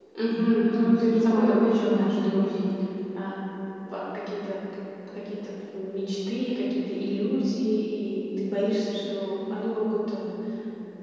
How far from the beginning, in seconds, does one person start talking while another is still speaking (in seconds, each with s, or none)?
0.7 s